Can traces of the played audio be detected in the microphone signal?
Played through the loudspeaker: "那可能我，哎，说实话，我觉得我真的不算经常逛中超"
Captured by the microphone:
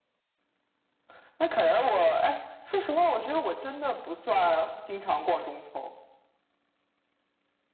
Yes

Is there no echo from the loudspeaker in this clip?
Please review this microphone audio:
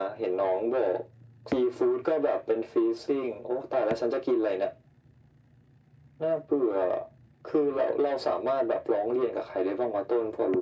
No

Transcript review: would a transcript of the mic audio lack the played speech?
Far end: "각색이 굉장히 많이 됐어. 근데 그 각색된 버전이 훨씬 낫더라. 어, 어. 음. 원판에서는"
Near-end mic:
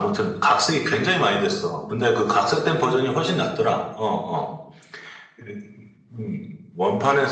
No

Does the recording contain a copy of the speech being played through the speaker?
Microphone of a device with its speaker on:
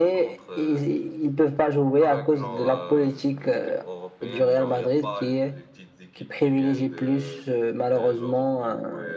Yes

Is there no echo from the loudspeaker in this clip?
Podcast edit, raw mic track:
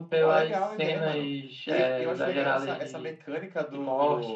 No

